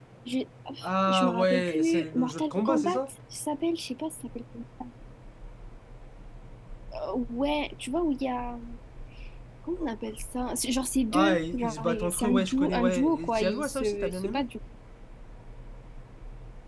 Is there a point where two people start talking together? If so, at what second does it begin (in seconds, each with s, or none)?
1.1 s